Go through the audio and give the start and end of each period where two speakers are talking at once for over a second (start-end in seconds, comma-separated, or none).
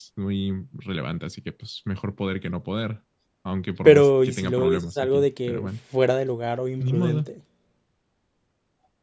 3.8-5.7